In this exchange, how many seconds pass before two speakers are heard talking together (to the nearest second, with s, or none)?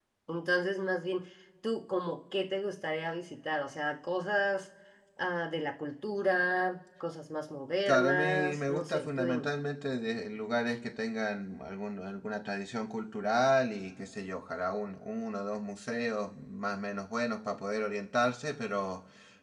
8 s